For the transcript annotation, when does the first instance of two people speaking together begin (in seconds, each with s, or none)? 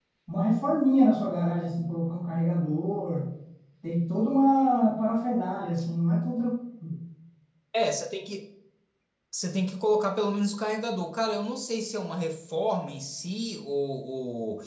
none